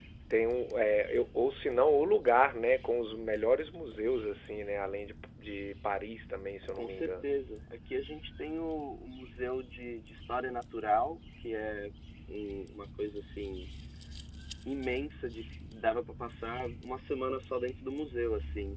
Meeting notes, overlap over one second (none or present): none